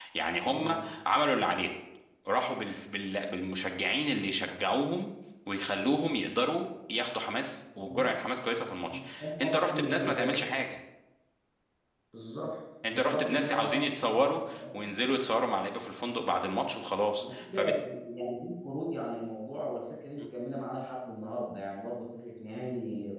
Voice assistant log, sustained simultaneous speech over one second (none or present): present